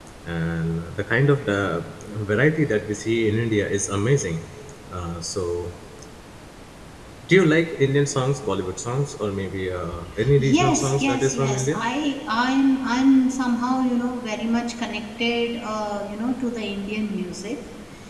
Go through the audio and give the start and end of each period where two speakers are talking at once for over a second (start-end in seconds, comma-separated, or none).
10.4-11.8